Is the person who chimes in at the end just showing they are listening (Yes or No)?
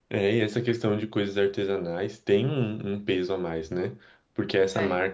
Yes